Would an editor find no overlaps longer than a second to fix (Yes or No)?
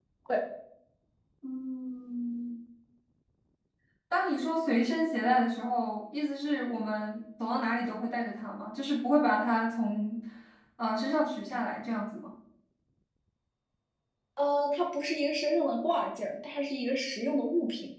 Yes